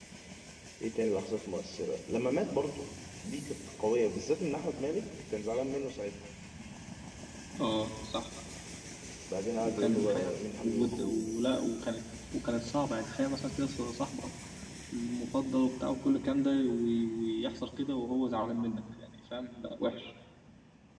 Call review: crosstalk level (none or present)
present